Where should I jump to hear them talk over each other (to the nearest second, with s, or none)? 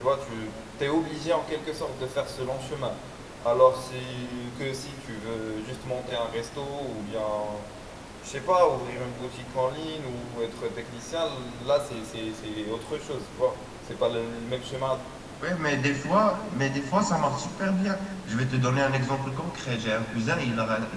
none